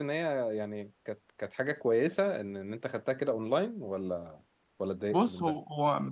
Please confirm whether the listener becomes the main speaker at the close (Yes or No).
Yes